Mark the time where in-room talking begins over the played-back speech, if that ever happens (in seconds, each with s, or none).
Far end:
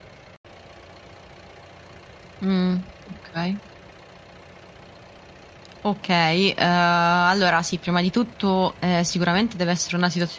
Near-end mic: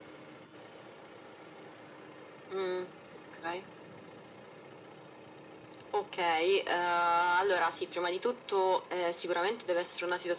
none